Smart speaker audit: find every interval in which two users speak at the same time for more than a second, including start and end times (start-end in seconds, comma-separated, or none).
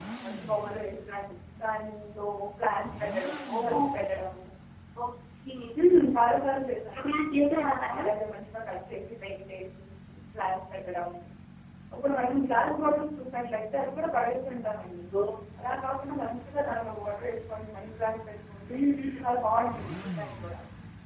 none